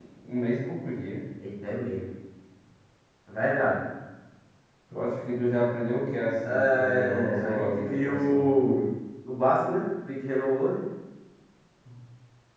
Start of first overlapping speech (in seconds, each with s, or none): 6.5 s